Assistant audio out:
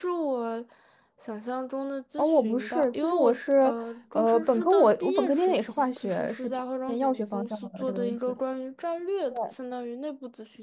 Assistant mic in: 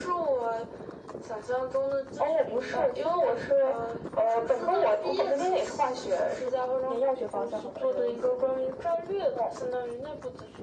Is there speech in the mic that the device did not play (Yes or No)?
No